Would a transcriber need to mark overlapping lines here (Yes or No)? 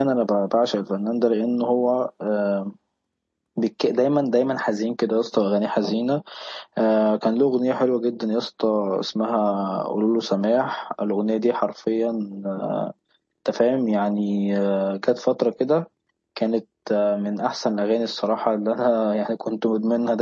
No